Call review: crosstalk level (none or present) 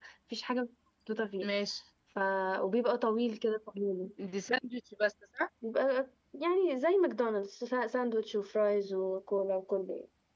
none